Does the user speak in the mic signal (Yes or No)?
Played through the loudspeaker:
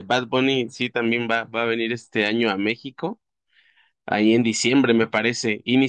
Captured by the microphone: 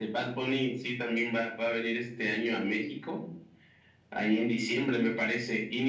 No